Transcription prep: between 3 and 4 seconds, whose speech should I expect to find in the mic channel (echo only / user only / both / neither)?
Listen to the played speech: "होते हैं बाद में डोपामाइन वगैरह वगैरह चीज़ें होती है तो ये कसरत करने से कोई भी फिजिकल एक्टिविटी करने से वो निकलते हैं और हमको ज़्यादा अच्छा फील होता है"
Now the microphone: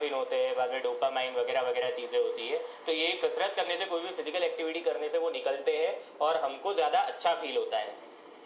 echo only